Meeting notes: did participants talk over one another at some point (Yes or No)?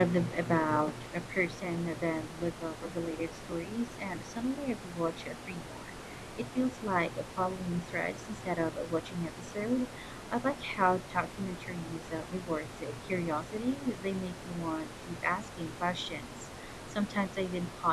No